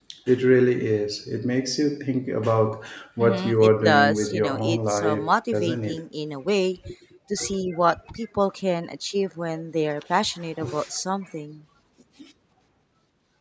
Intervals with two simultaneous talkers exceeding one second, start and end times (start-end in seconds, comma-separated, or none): 3.2-6.0